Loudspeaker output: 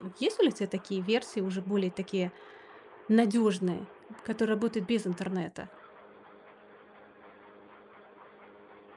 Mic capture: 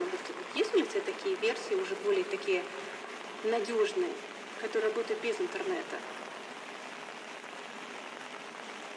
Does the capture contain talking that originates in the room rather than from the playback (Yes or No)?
No